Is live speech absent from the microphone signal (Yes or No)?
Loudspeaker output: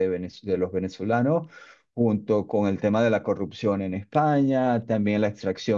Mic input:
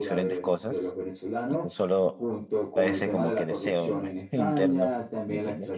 No